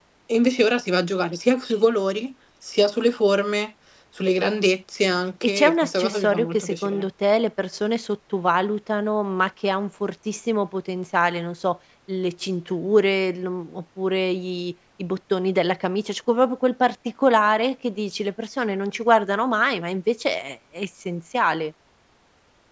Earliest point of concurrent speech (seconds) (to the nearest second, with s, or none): 5 s